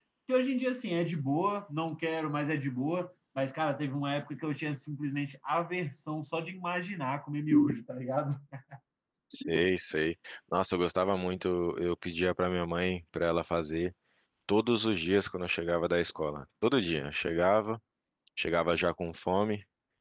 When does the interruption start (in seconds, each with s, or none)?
none